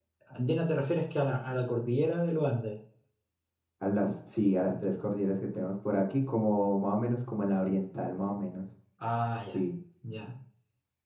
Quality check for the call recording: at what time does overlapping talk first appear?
none

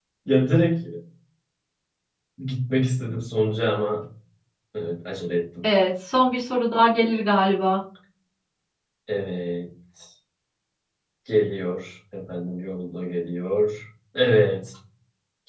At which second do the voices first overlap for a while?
none

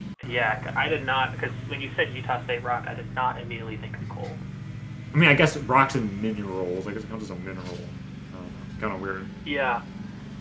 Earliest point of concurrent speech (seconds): none

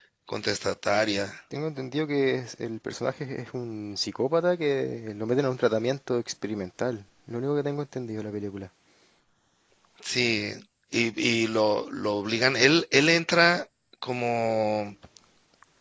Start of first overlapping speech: none

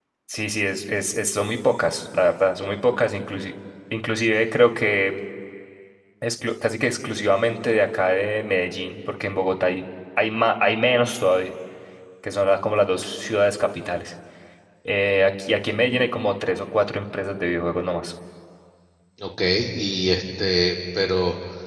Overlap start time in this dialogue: none

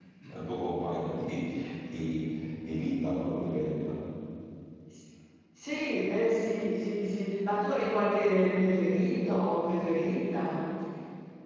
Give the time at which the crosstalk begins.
none

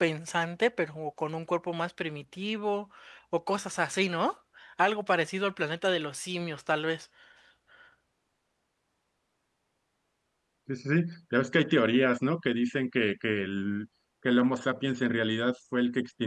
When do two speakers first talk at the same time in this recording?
none

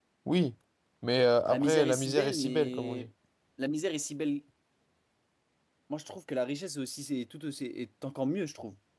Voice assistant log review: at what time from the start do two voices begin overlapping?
1.5 s

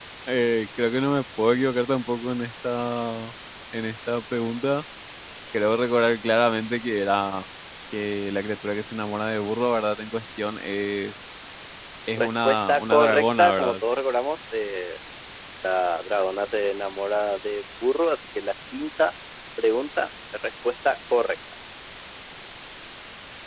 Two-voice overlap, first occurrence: 12.2 s

